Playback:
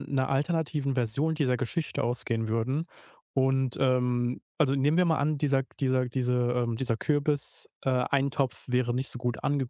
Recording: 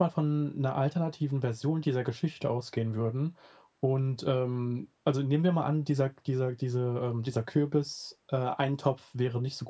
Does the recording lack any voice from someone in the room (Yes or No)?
Yes